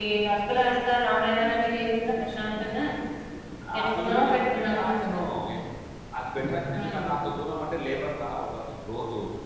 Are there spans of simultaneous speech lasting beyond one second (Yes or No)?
Yes